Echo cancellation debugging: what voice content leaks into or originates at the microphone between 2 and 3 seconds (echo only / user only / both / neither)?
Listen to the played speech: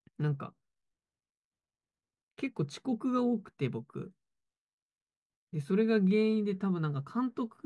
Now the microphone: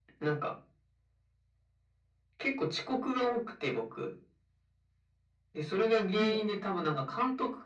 echo only